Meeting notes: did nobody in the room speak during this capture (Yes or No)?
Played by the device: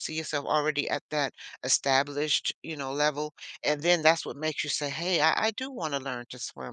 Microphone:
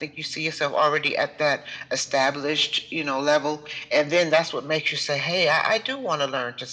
Yes